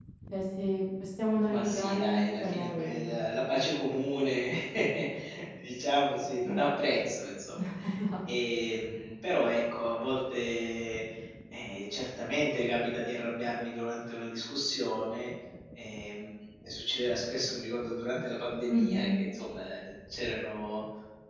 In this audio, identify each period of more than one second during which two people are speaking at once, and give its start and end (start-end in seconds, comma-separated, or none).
1.4-3.2